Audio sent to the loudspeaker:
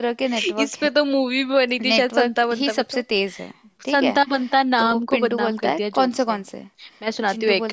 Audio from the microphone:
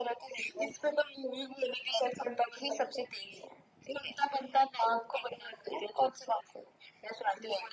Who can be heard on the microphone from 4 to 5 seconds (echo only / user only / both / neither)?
echo only